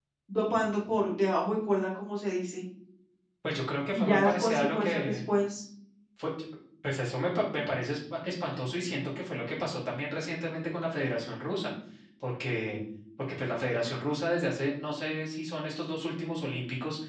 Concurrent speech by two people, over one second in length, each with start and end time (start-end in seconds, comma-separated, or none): 3.9-5.2